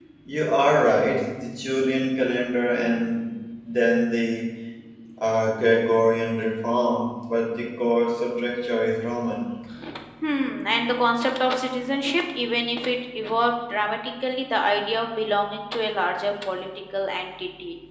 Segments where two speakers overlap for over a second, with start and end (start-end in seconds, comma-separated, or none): none